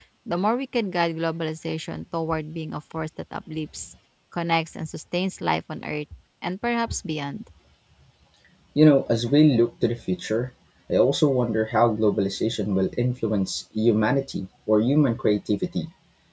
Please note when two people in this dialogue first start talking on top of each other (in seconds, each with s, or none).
none